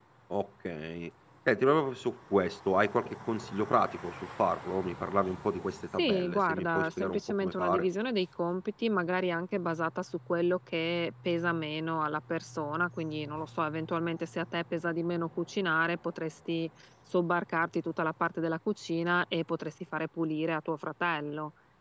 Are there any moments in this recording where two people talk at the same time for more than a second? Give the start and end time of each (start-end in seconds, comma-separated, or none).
6.0-7.9